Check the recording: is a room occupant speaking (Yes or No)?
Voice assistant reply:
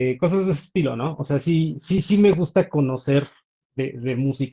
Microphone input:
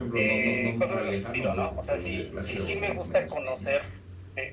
Yes